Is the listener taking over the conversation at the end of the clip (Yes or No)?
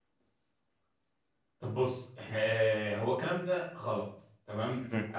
No